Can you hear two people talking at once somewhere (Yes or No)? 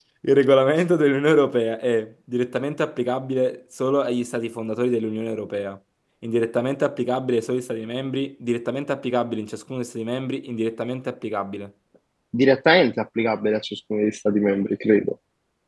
No